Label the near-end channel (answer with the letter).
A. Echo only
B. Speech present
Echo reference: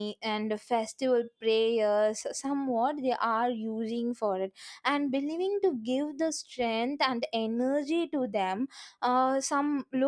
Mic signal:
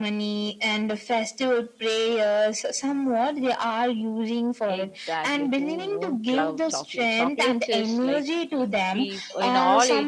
B